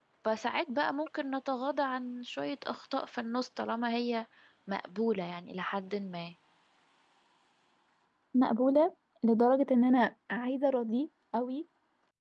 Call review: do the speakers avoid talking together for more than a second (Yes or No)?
Yes